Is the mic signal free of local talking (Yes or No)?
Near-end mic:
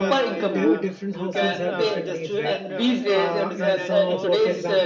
No